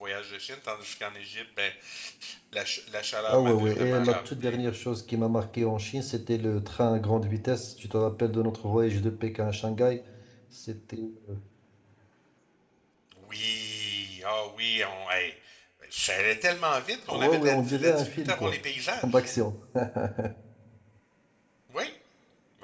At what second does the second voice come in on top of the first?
3 s

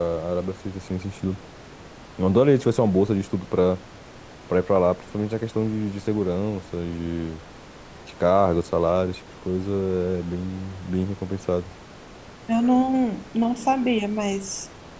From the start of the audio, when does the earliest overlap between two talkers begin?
none

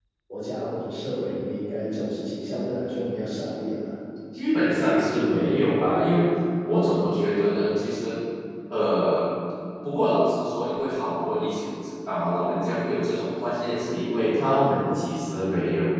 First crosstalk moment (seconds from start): none

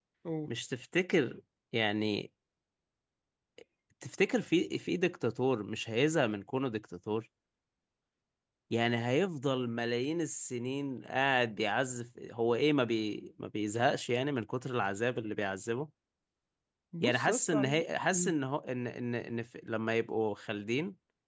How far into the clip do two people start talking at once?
17 s

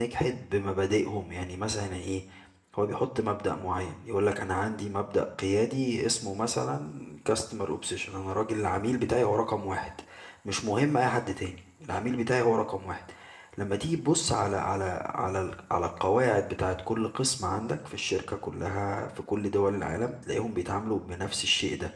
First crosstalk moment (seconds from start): none

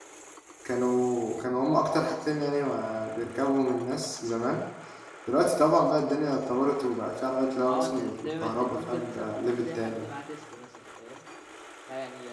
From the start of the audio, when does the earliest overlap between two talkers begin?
8 s

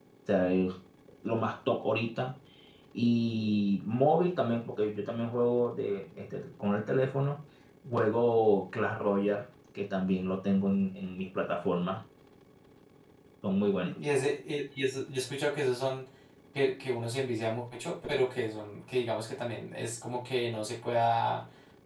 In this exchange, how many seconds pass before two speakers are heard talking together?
none

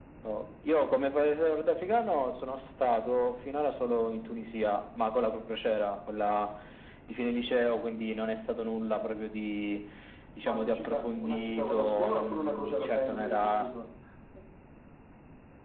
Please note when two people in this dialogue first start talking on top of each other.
10 s

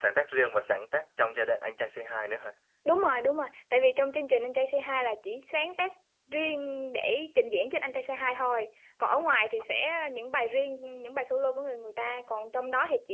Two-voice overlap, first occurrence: none

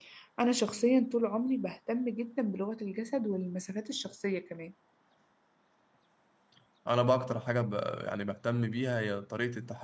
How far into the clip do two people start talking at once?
none

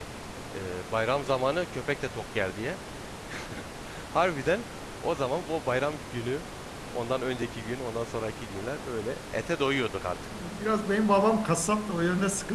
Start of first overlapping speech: none

